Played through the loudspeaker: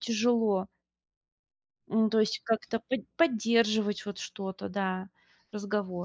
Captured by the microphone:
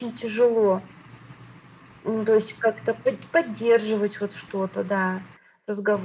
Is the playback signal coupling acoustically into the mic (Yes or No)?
Yes